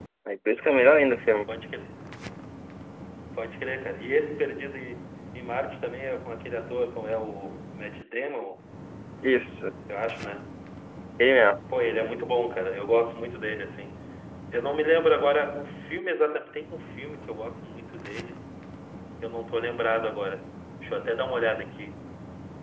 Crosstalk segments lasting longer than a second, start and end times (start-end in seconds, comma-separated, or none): none